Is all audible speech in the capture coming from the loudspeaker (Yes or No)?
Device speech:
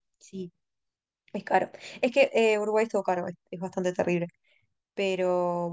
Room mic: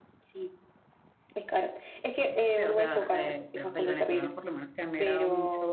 No